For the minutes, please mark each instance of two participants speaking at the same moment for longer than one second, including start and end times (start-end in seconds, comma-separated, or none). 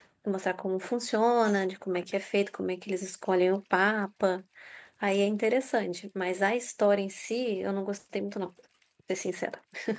none